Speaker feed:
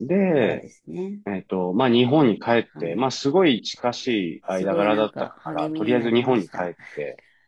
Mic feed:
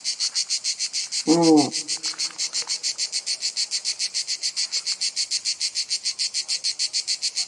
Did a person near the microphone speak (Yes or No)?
Yes